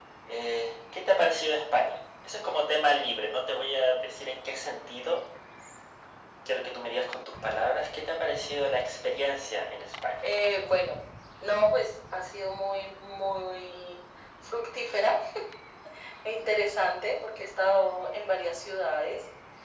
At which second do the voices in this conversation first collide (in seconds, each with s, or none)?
none